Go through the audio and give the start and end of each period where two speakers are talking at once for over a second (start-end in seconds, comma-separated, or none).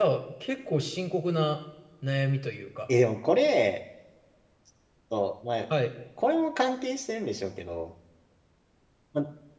none